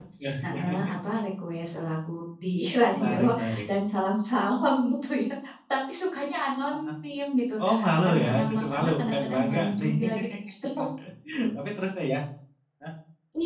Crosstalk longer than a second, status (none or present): present